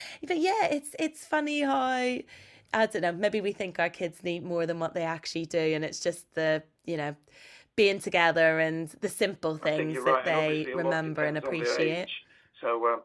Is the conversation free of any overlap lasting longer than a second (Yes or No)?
No